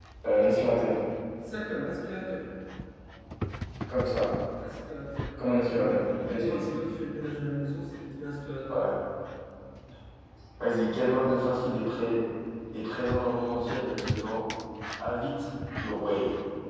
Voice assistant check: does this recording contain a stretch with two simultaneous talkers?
Yes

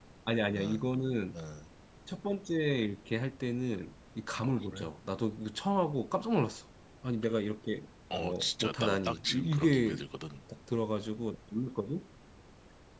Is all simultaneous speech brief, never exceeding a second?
No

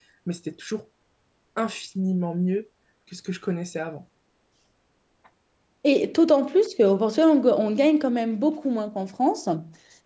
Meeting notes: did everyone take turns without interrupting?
Yes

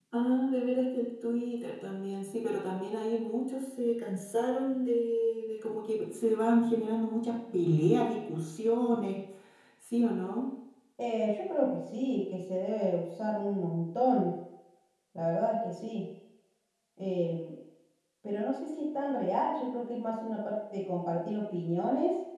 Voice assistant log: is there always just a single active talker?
Yes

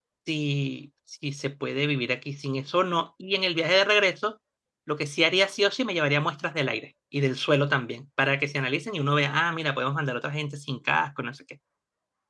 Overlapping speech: No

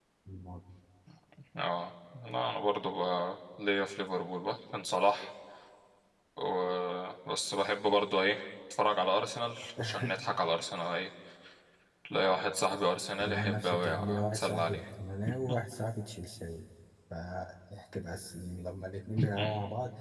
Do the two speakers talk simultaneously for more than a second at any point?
Yes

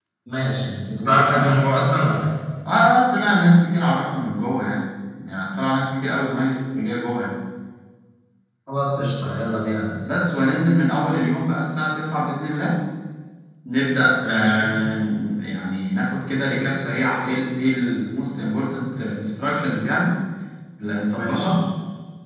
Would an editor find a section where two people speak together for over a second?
No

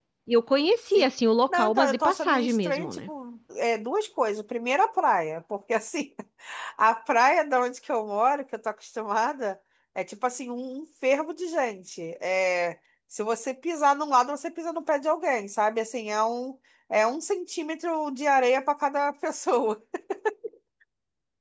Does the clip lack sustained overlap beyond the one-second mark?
No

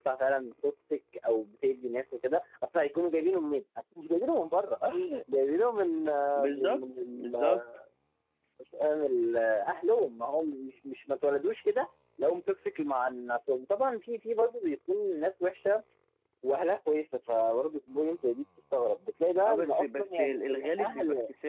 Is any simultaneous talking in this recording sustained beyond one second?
Yes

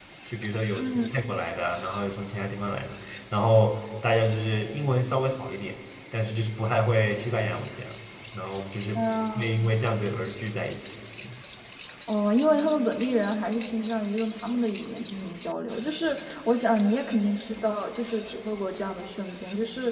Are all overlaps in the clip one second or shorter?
Yes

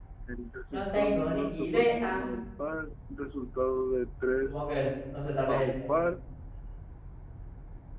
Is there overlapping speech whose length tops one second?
Yes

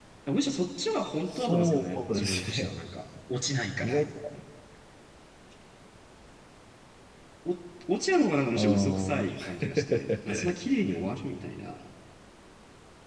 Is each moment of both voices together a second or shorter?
No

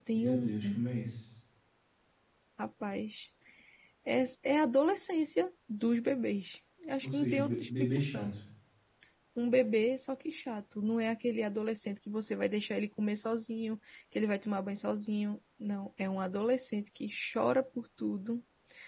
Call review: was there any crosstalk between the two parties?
Yes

